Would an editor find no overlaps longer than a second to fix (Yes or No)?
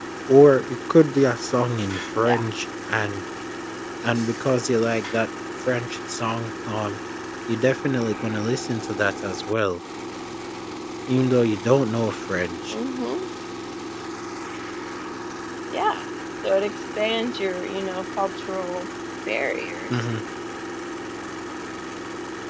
Yes